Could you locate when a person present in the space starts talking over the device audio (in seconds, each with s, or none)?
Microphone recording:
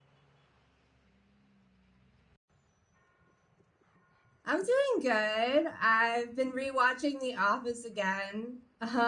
4.4 s